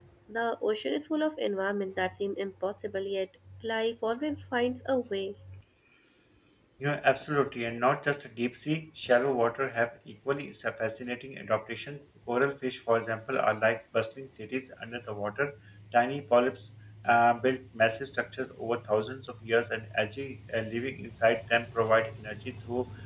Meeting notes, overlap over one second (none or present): none